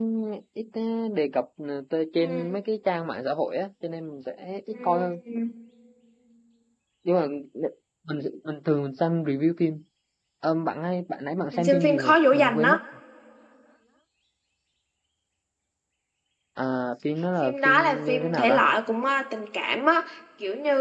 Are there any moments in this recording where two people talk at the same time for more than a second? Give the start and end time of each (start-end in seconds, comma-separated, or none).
11.5-12.7, 17.4-18.6